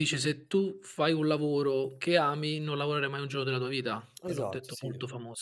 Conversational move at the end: taking over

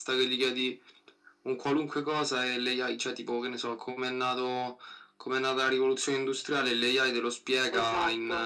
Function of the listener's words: listening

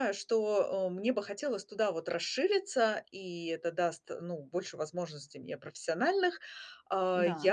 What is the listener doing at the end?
listening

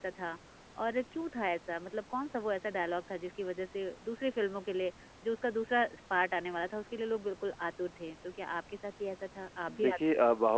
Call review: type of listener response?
taking over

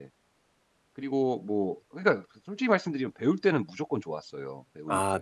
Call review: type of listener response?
taking over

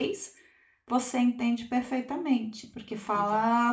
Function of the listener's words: listening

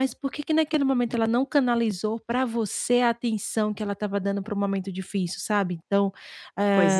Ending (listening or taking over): listening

